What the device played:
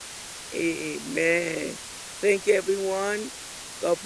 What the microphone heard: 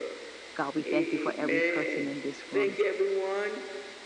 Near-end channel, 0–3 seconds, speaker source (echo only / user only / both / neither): both